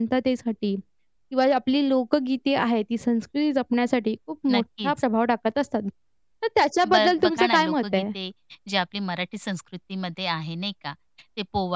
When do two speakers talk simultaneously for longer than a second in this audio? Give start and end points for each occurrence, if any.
6.8-8.0

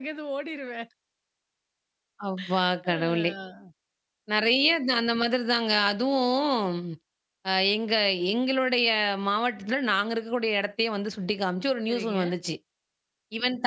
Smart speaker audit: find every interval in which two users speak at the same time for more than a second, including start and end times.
none

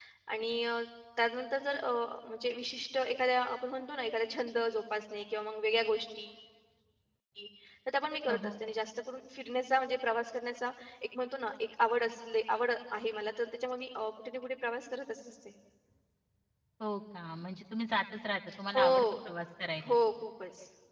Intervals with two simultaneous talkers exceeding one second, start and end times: none

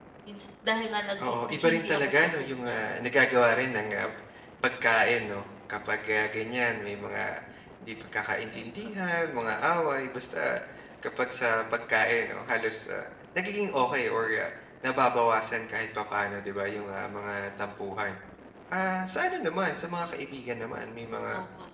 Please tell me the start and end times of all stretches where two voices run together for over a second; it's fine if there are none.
1.2-2.8

